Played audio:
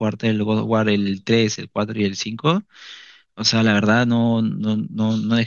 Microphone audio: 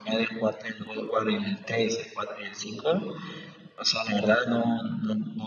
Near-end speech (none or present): none